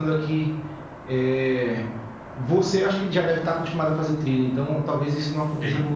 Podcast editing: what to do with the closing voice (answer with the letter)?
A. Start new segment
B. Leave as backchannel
B